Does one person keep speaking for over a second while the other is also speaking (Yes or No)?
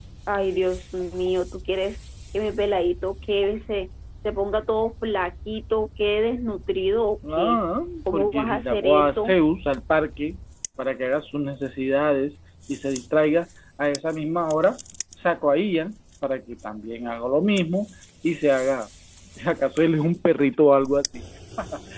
Yes